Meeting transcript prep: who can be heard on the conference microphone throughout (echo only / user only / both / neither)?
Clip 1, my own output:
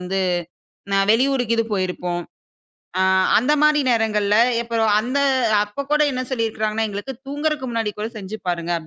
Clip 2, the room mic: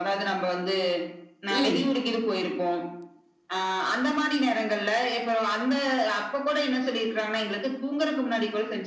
both